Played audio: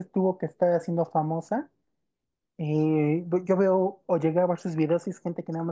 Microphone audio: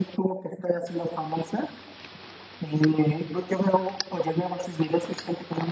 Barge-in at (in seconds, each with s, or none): none